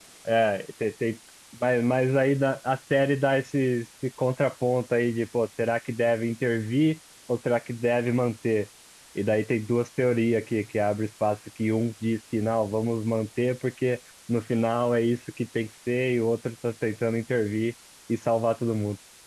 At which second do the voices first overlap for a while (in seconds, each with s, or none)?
none